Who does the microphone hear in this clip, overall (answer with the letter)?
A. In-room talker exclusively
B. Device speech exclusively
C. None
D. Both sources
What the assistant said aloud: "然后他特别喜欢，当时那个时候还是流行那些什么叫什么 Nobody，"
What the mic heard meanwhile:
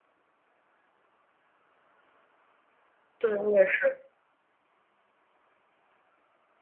A